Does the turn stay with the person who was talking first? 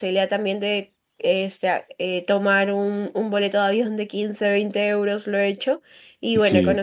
Yes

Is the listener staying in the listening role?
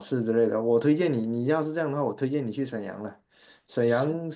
Yes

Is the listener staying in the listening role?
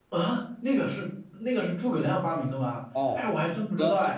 No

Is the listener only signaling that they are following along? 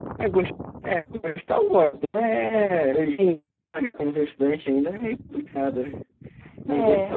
Yes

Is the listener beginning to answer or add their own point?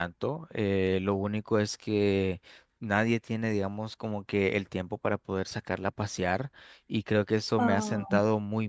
No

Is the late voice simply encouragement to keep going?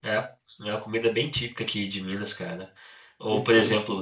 Yes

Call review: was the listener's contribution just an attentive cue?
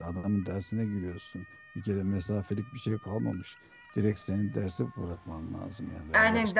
No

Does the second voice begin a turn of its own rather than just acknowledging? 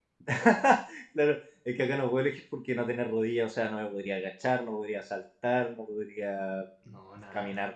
No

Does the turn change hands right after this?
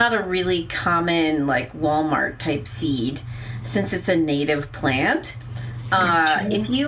No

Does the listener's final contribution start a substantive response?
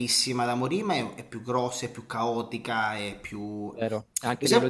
Yes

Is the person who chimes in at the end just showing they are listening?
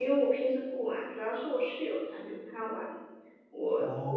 Yes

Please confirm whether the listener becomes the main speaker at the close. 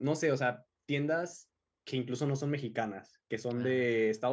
No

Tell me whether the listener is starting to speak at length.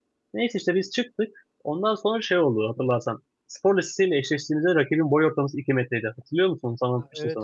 Yes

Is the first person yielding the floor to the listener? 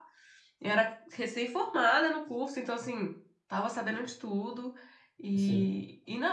No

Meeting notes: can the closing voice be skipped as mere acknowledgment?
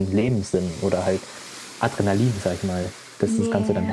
No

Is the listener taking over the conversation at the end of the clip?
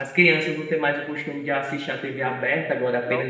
No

